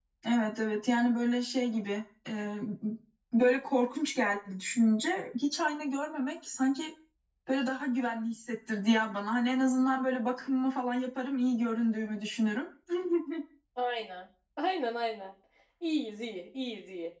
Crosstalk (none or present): none